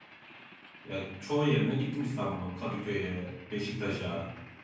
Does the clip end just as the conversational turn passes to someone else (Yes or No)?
Yes